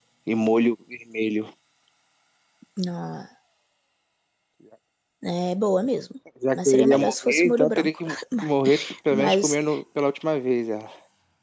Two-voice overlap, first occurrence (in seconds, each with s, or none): 6.4 s